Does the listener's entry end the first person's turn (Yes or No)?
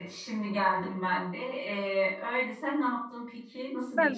Yes